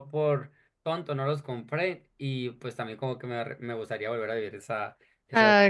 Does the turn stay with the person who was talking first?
No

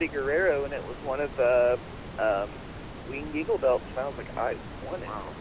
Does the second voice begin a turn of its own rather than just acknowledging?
Yes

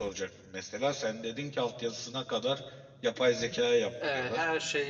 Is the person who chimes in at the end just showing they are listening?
No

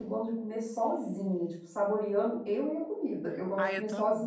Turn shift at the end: Yes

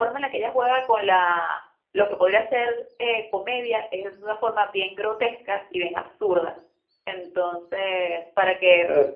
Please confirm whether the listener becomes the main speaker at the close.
Yes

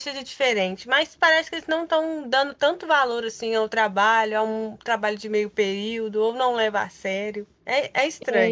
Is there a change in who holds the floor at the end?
Yes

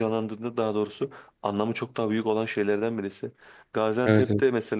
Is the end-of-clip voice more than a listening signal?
No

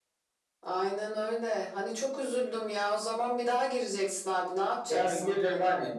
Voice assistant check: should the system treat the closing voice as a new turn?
Yes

